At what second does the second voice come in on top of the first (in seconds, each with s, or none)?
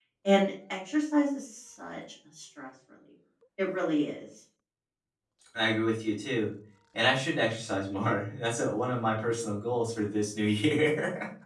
none